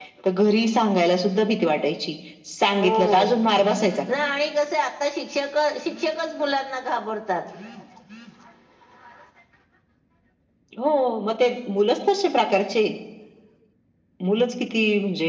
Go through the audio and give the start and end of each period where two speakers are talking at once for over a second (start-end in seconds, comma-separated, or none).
2.8-4.0